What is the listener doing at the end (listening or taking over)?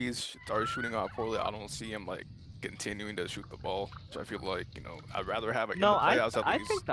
taking over